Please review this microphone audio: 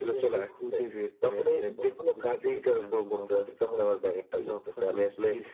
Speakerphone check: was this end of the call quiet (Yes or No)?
Yes